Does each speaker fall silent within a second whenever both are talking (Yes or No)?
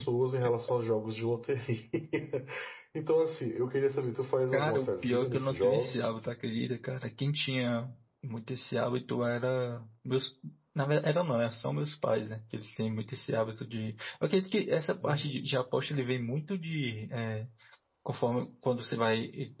No